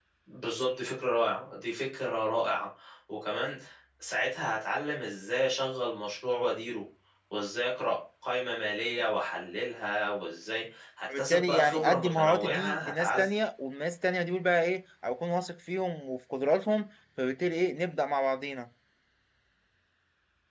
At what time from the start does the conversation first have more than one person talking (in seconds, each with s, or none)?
11.1 s